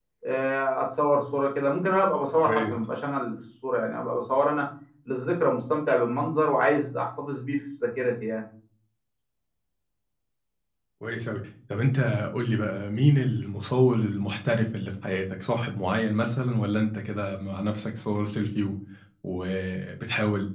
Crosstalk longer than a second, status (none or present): none